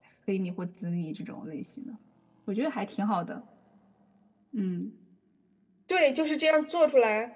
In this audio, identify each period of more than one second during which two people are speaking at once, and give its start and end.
none

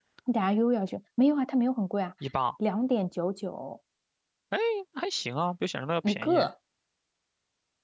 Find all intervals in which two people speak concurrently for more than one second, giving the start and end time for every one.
none

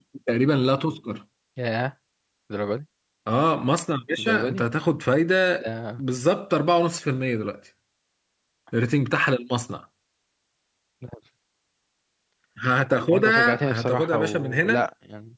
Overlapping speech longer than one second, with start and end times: 13.1-14.8

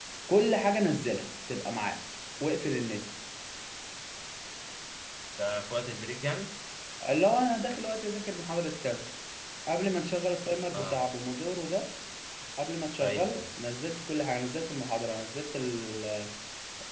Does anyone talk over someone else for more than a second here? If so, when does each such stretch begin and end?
none

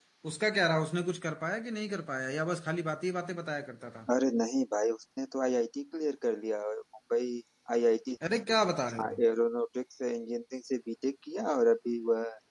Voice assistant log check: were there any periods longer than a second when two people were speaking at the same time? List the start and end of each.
none

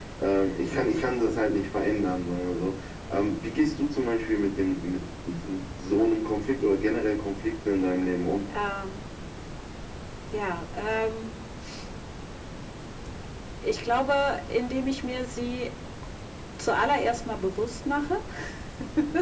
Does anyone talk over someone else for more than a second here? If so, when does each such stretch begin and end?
none

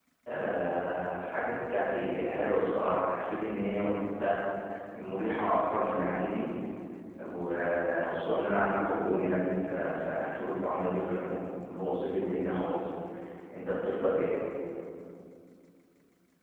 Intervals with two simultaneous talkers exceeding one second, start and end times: none

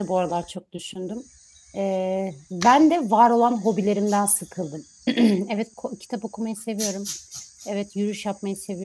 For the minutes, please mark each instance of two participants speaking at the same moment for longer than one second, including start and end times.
none

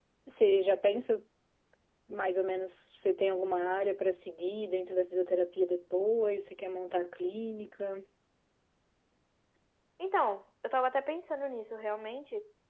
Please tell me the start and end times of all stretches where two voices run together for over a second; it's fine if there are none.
none

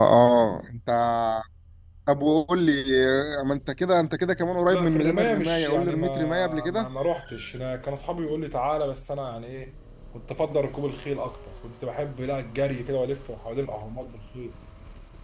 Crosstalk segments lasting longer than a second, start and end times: 4.7-6.9

